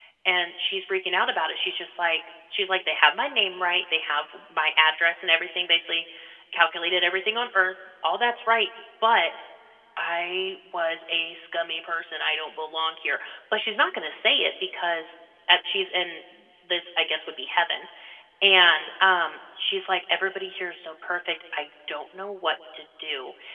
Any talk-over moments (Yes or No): No